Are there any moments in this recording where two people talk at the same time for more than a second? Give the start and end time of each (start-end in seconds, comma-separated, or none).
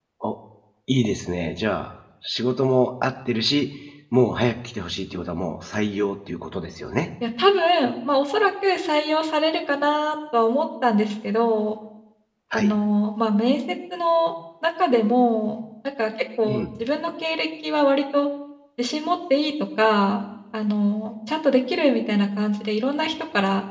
none